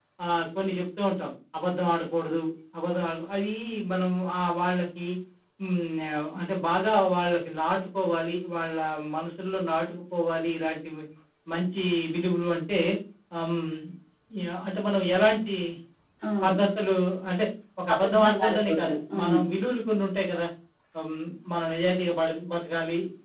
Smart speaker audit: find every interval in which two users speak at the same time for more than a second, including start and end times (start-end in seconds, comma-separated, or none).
17.9-19.4